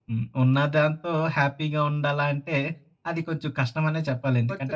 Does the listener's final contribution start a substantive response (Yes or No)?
Yes